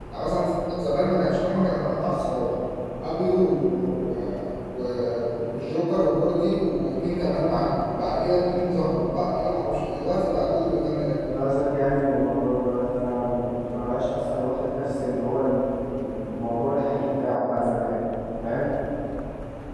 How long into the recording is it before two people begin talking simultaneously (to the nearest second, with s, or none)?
none